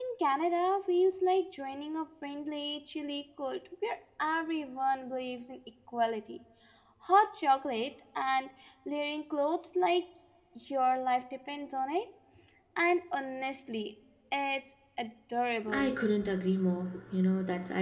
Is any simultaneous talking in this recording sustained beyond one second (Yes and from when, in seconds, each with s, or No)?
No